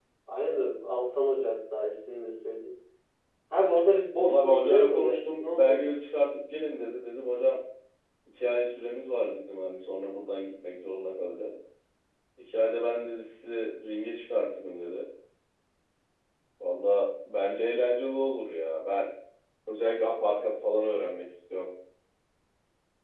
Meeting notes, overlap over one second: present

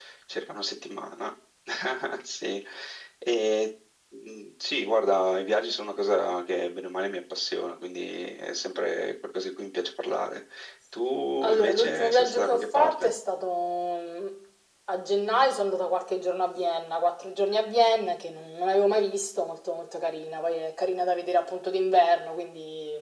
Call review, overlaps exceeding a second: present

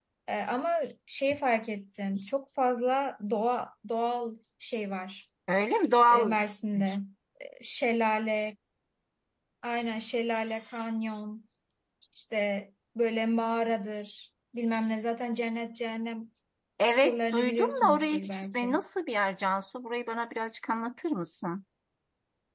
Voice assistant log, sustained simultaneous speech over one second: present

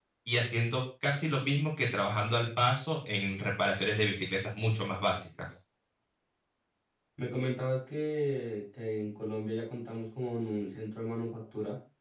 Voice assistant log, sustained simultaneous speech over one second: none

